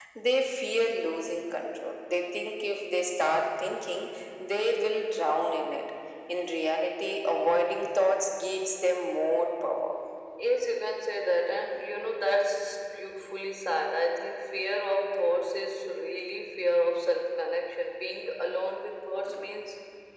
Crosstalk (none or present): none